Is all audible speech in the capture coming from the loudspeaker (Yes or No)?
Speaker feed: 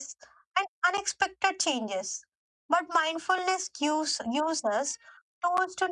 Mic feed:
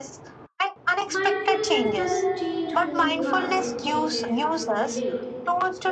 No